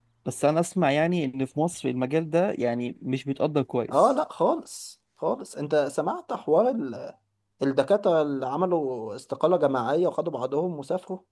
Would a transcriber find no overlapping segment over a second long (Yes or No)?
Yes